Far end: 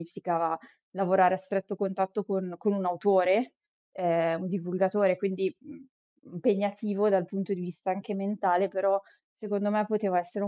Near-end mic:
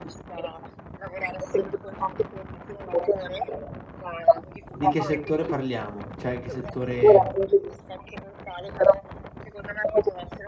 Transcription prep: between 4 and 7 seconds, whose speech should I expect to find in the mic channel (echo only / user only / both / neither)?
both